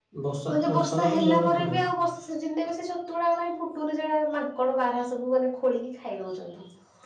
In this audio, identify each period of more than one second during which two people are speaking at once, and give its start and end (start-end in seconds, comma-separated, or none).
0.5-1.8